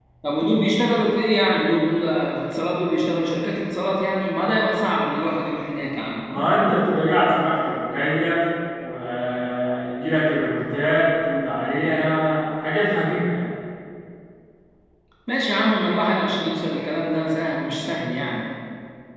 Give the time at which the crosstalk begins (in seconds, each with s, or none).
none